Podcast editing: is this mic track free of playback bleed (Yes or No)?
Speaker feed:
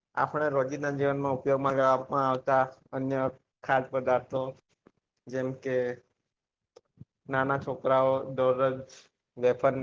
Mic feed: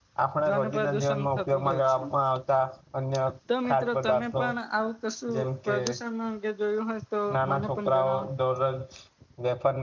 No